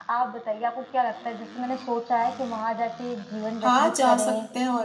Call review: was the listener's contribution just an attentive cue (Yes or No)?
No